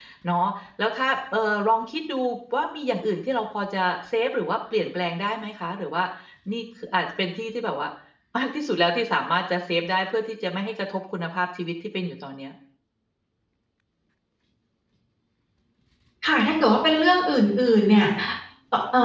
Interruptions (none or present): none